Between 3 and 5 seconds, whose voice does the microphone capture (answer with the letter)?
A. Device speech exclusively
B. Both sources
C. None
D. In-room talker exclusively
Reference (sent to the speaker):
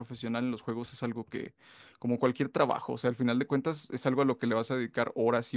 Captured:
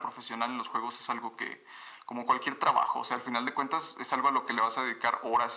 A